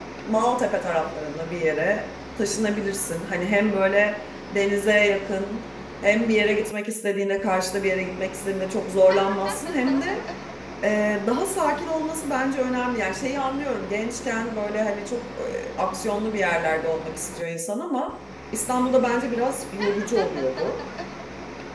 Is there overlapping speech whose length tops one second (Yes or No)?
No